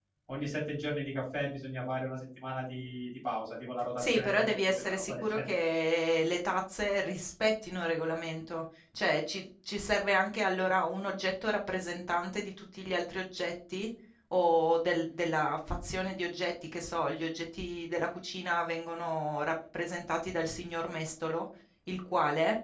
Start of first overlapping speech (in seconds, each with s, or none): 4.0 s